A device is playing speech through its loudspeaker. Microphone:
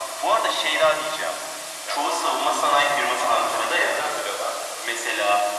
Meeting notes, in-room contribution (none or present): none